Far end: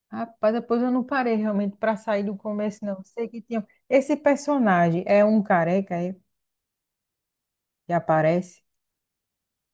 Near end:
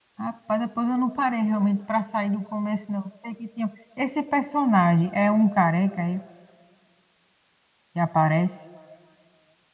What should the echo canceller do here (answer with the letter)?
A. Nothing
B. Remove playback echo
B